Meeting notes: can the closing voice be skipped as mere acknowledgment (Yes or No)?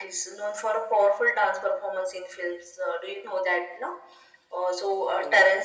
Yes